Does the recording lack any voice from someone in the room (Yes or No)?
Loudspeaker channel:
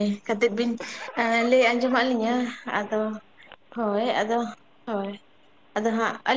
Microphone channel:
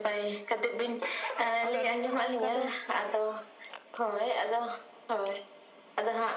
No